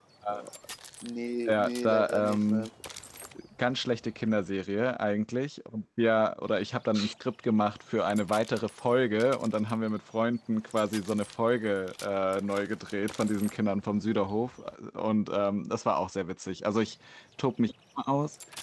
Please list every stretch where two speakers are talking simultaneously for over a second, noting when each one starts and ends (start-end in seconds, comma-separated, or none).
1.5-2.7